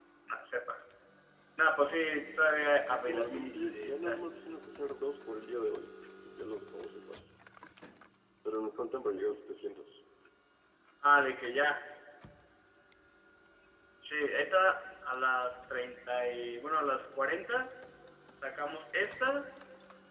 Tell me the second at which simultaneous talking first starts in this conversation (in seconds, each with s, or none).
2.9 s